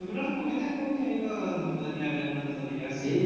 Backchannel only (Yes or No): No